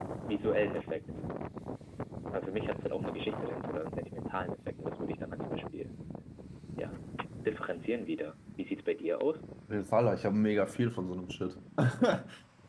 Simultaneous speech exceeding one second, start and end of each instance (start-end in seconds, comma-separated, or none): none